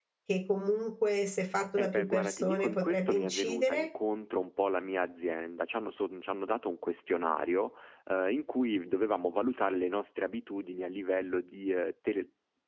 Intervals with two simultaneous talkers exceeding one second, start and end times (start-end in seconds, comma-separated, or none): 1.8-3.9